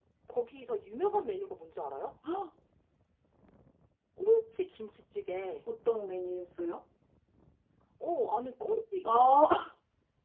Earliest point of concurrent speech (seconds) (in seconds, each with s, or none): none